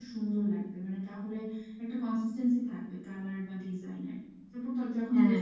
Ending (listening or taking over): listening